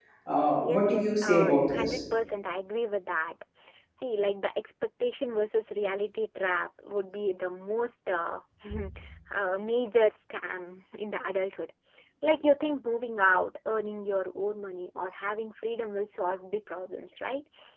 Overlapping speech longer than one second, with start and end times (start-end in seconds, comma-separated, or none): 0.6-2.0